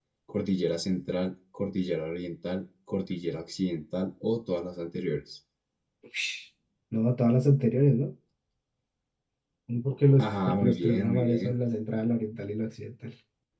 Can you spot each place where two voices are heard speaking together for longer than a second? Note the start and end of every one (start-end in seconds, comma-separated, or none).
10.2-11.5